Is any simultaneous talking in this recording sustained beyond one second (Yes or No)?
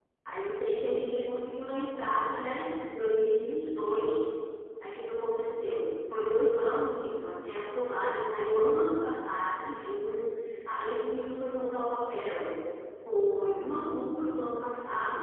No